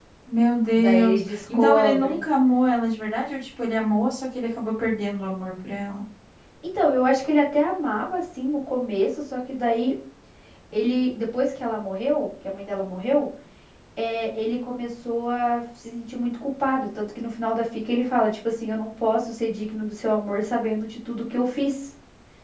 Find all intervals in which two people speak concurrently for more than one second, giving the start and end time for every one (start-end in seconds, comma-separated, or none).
0.8-2.2